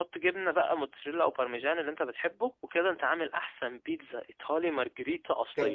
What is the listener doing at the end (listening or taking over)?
taking over